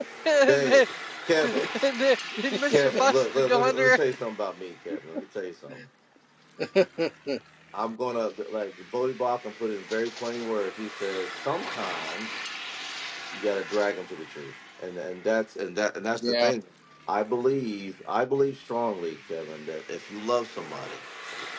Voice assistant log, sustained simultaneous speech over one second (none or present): present